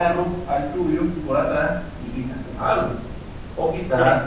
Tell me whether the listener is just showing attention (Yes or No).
Yes